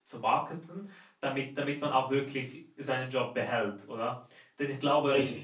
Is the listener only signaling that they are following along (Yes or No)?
Yes